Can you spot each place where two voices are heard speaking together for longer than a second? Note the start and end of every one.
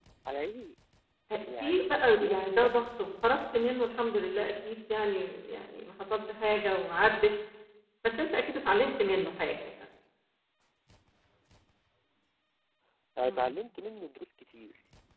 1.6-2.9

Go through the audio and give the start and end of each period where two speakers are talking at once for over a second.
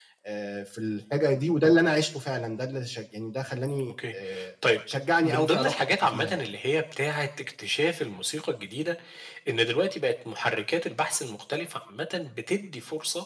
5.2-6.4

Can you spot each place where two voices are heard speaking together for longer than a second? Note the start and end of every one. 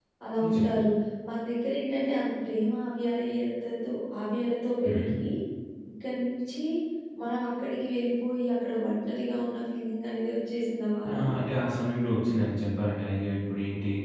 none

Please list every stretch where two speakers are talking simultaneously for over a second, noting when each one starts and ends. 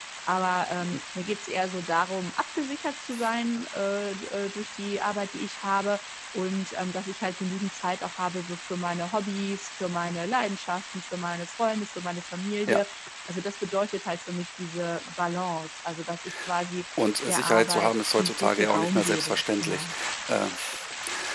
17.2-19.9

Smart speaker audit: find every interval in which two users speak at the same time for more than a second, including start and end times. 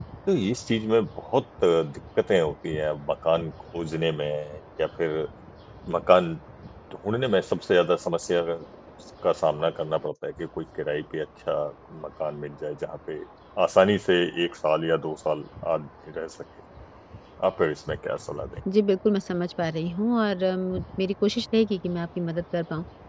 none

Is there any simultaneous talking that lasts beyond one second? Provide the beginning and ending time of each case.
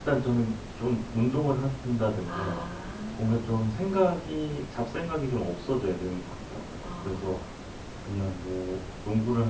none

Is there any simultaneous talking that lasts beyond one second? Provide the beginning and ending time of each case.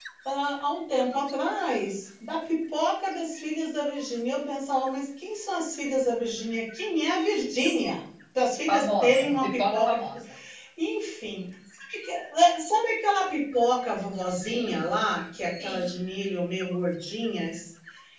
8.7-10.0

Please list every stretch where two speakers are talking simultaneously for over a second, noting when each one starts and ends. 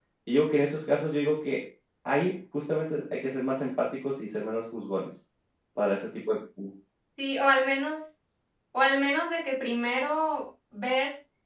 none

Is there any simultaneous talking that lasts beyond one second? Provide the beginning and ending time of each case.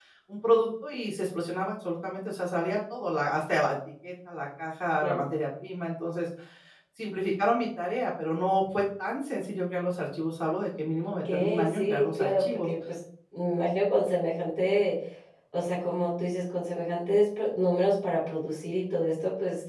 11.3-12.7

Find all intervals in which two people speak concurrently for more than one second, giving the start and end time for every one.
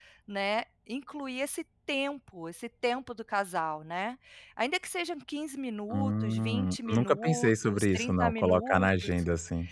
5.9-9.1

